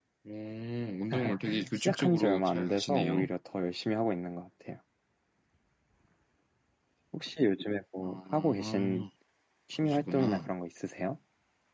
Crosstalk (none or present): present